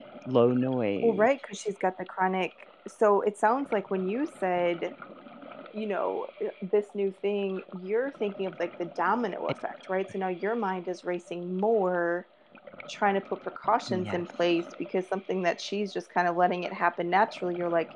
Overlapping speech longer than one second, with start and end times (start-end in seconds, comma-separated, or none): none